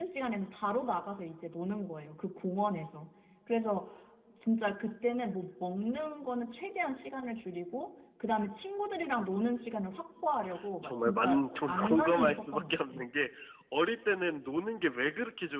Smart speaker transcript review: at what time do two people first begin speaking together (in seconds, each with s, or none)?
10.8 s